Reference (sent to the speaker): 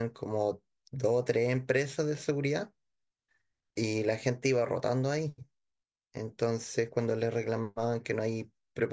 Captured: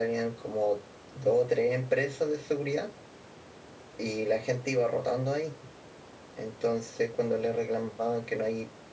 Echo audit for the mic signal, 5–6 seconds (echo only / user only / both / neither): echo only